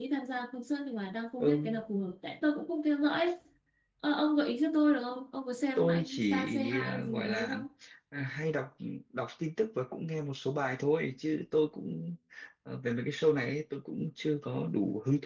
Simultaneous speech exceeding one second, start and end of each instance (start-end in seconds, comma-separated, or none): 5.8-7.6